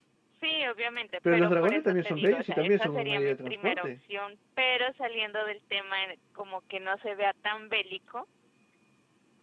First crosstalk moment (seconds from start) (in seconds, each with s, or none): 1.2 s